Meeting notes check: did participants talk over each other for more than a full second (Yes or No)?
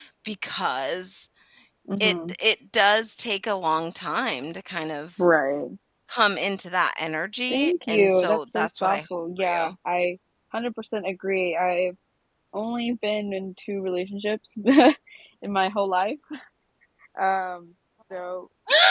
Yes